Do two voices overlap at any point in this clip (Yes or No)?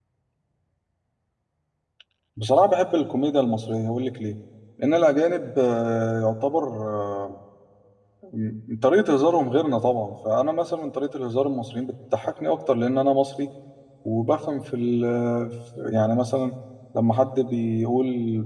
No